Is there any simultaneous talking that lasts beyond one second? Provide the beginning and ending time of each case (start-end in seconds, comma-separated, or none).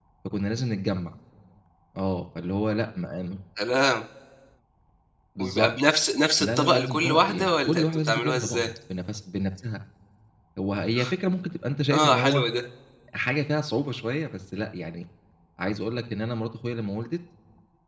6.4-8.7